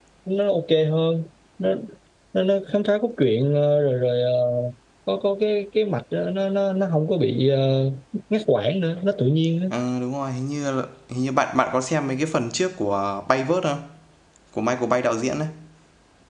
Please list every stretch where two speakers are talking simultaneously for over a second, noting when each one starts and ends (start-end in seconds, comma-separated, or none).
none